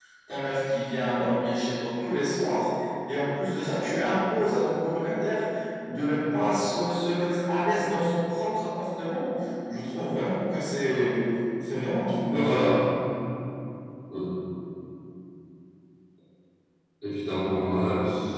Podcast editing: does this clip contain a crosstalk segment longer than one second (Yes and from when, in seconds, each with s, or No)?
No